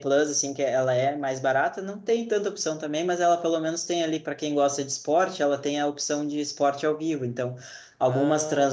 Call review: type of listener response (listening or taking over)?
listening